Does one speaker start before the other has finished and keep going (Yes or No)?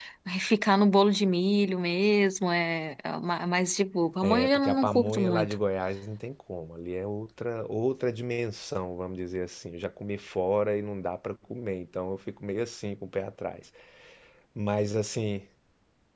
Yes